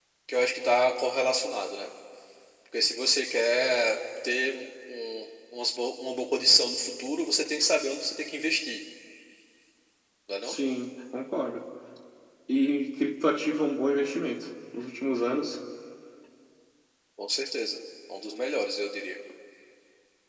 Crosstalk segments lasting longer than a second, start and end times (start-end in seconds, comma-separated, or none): none